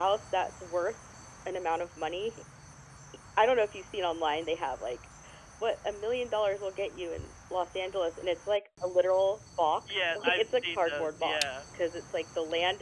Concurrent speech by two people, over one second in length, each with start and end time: 9.9-11.6

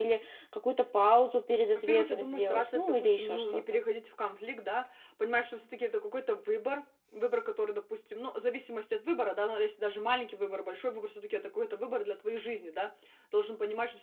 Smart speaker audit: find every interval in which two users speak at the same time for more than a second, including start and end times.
1.8-3.8

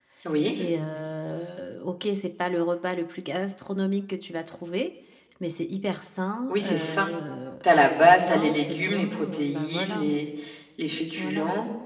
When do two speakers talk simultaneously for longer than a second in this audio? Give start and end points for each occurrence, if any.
7.6-10.1

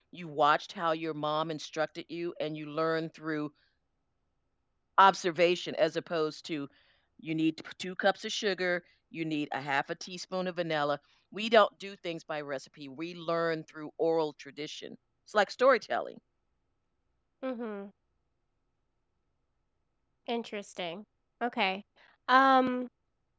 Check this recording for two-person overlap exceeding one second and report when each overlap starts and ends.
none

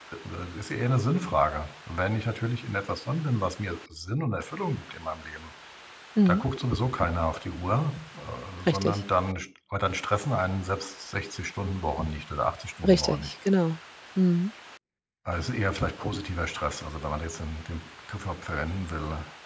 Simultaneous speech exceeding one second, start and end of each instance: none

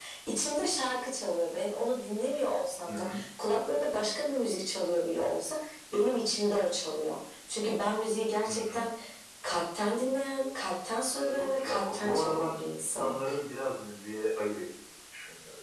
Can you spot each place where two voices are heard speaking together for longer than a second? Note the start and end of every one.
11.5-13.2

